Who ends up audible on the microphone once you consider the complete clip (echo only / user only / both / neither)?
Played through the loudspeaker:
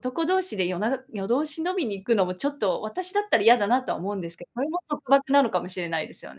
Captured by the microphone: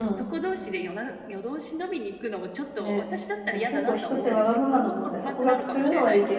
both